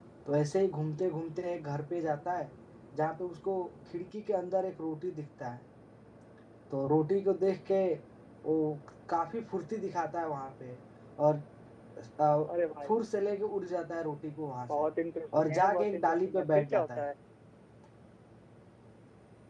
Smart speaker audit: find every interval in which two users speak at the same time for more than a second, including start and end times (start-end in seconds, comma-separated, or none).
15.4-17.1